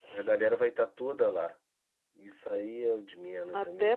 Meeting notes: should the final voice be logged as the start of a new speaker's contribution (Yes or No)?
Yes